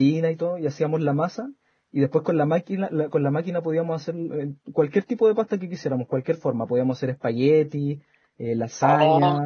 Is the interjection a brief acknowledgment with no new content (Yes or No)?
No